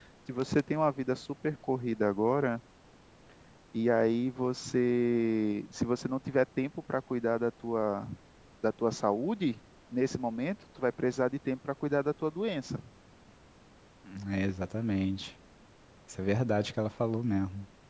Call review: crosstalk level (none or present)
none